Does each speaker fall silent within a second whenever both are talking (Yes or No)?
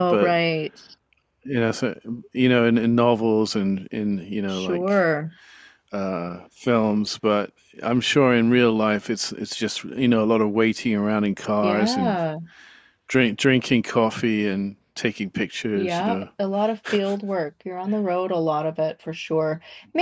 Yes